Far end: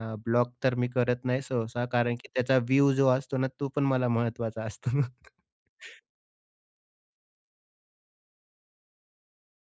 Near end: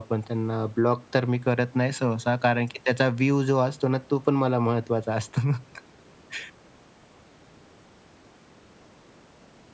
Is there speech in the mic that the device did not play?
No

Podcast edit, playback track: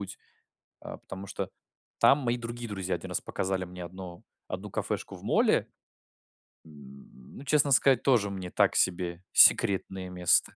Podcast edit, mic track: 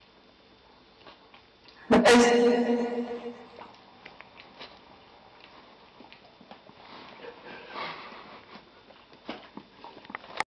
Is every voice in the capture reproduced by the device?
No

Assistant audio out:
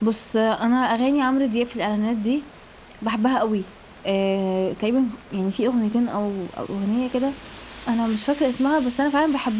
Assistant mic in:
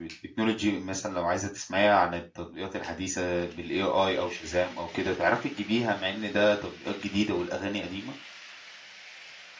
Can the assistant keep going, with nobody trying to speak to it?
No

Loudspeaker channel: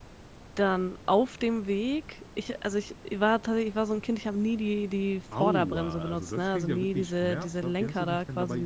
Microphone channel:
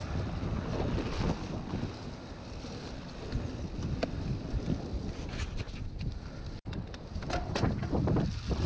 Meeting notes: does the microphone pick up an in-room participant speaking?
No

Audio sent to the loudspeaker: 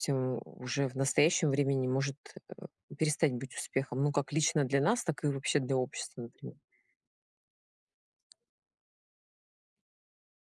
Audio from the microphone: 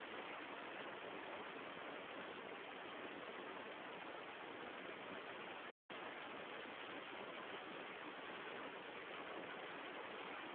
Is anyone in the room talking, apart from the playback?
No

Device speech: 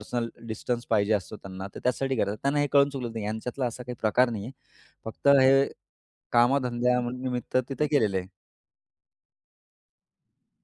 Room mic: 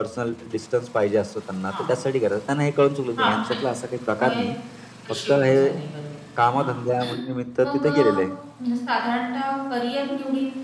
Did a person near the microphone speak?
Yes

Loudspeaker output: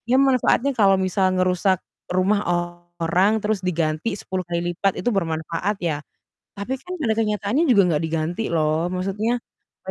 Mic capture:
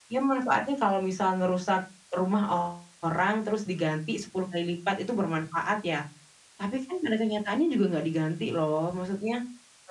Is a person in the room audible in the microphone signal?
No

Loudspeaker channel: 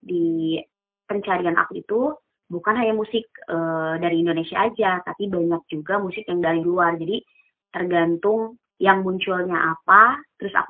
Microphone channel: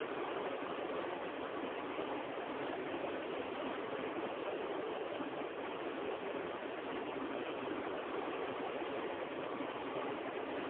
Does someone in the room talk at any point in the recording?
No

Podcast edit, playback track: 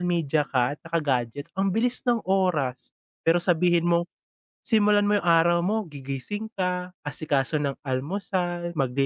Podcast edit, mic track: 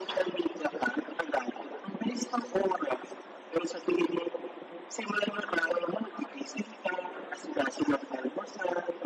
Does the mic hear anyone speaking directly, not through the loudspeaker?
No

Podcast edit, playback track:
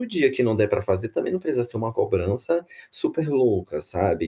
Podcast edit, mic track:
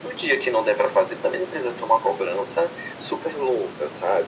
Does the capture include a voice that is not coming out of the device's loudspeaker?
No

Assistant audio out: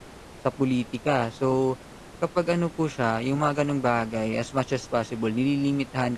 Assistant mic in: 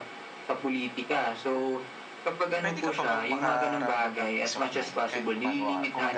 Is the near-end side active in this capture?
Yes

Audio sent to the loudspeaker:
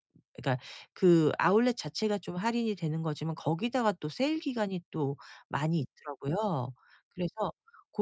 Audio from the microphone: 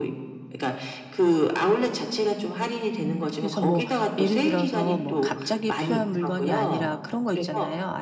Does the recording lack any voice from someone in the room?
No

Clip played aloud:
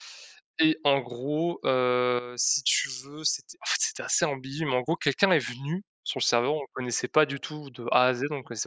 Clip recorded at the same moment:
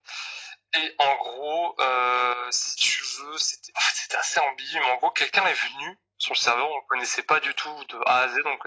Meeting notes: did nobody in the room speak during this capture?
Yes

